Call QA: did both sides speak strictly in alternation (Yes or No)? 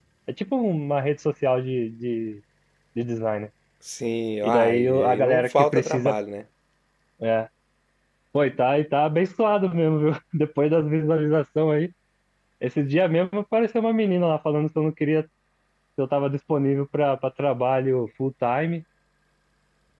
No